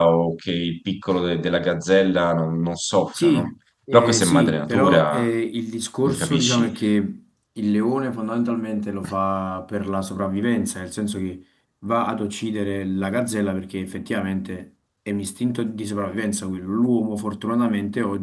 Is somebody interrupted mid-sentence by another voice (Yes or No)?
Yes